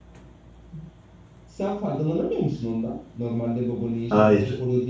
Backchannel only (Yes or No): No